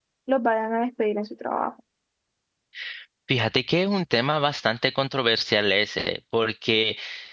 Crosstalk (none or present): none